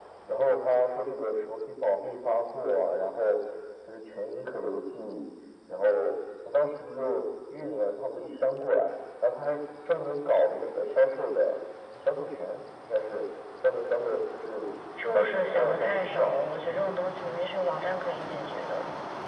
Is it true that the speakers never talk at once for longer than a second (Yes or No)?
No